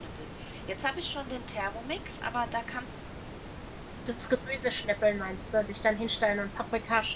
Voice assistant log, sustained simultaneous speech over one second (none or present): none